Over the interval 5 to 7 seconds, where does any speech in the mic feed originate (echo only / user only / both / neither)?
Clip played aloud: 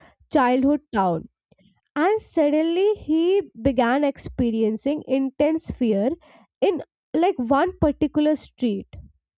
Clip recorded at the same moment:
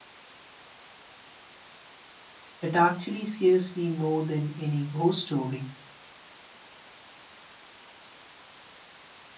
user only